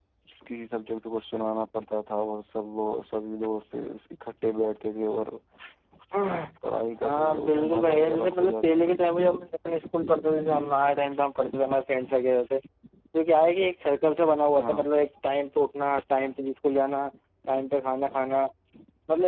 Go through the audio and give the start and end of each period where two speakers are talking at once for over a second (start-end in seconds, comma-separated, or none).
7.0-8.8